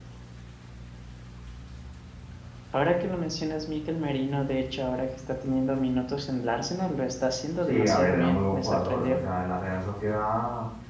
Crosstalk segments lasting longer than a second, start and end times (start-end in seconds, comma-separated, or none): 7.7-9.2